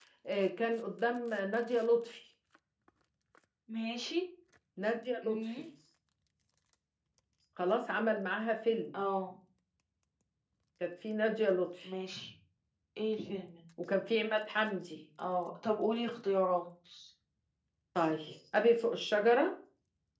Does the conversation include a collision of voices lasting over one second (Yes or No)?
No